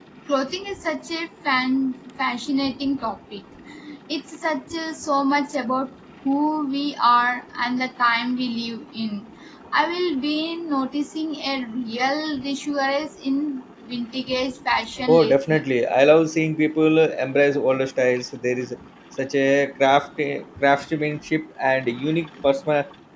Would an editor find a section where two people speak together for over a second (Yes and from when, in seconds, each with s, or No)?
No